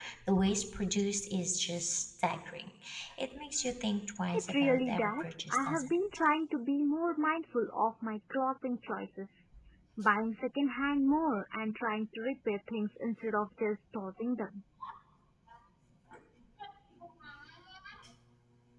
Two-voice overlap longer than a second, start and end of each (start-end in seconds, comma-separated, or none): 4.3-6.2